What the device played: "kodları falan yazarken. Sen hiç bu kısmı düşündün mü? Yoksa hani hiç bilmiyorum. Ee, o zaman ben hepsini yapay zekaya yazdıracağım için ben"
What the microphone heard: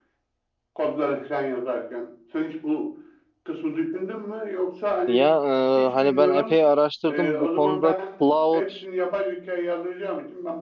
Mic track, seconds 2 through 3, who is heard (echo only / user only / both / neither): echo only